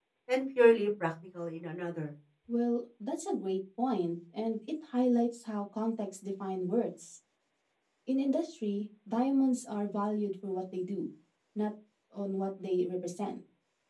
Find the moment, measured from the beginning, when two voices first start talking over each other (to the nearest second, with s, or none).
none